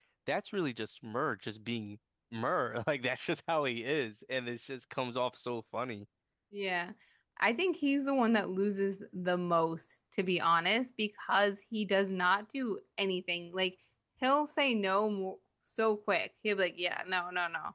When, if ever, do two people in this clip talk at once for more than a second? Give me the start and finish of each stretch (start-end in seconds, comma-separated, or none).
none